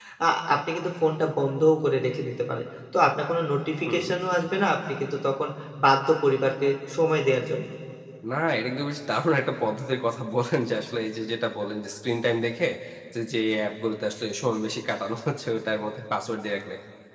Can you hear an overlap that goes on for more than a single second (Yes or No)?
No